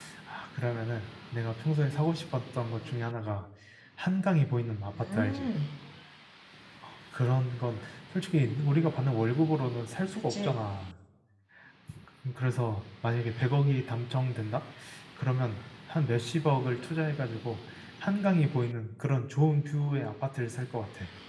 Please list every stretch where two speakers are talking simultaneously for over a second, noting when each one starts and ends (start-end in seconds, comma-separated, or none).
none